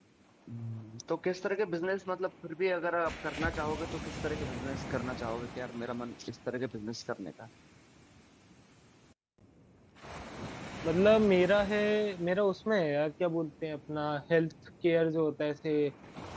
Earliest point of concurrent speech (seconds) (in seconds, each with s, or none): none